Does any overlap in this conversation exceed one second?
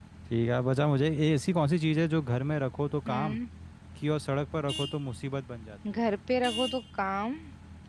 No

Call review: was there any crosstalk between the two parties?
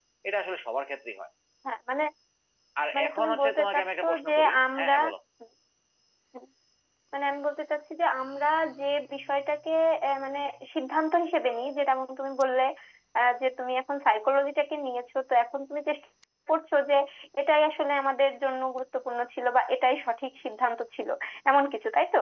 Yes, from 2.9 s

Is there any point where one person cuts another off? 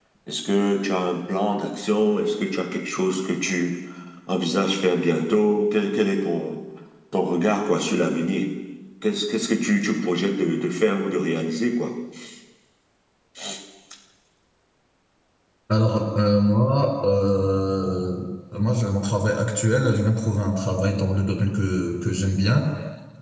No

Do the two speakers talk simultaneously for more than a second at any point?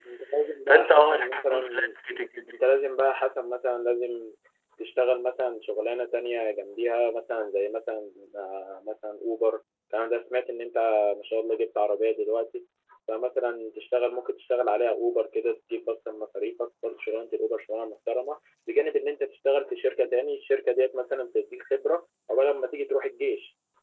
Yes, from 0.7 s

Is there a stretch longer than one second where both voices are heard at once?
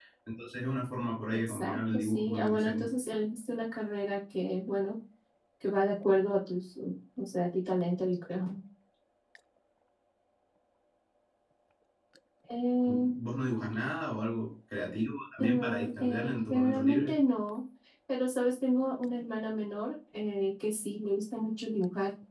Yes, from 1.3 s

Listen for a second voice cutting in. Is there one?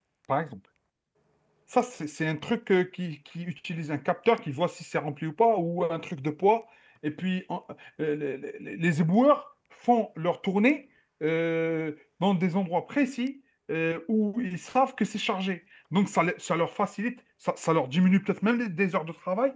No

